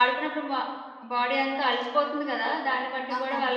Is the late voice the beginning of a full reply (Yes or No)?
No